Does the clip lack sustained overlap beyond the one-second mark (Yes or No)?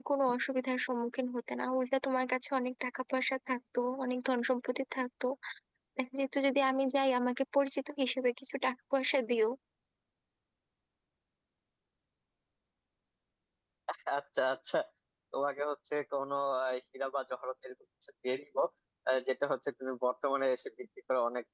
Yes